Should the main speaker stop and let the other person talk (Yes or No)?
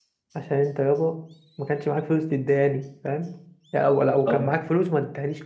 No